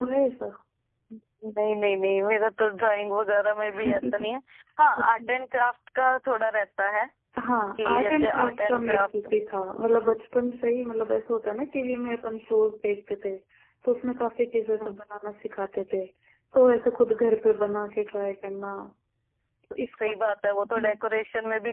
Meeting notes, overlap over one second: present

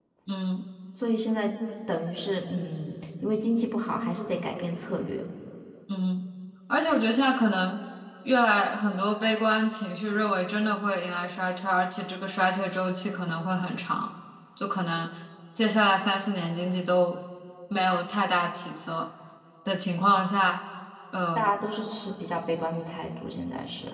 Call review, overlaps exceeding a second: none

